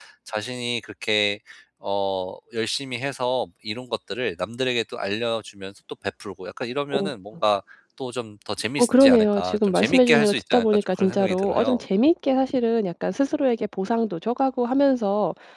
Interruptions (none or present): present